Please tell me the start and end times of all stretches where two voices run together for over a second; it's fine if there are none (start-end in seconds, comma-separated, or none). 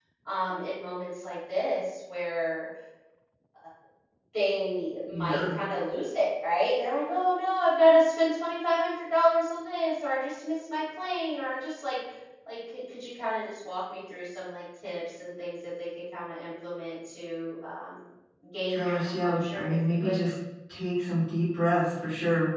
18.7-20.2